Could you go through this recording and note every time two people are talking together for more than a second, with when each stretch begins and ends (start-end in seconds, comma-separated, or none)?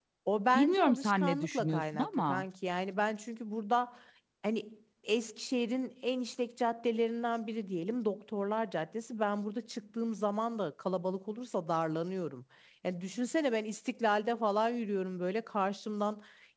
0.5-2.4